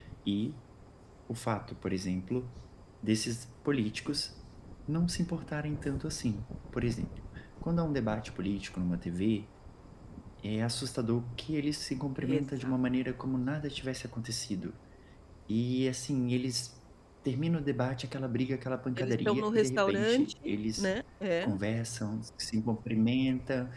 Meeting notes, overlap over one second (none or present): present